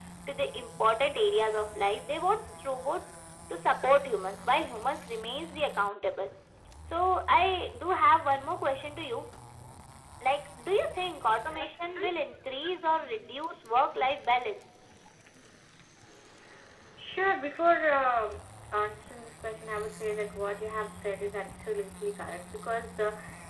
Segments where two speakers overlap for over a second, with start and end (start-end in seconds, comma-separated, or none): none